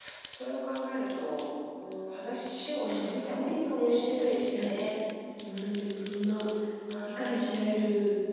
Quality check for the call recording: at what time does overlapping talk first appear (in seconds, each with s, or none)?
2.8 s